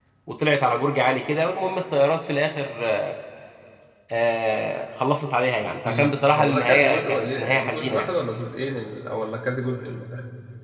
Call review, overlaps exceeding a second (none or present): present